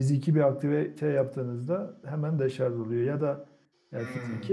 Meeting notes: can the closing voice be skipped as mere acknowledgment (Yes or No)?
Yes